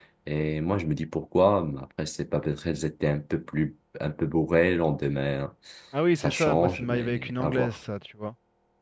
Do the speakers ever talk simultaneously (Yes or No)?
Yes